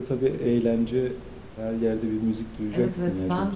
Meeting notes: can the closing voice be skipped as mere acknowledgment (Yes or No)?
No